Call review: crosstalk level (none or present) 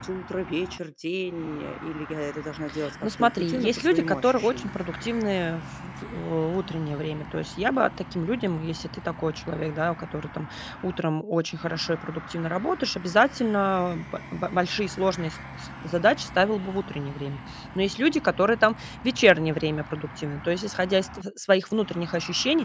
present